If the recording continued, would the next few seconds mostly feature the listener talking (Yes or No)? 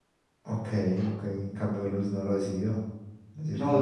Yes